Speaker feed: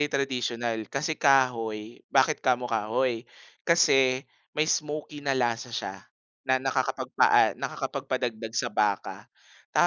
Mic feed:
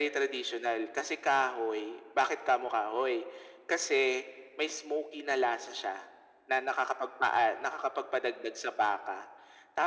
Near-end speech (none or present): none